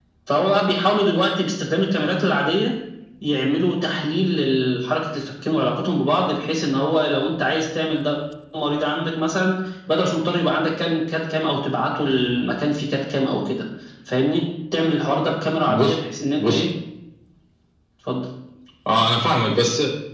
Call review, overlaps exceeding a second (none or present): none